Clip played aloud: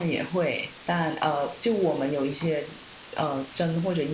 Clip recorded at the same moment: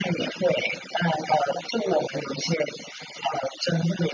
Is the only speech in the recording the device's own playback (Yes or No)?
Yes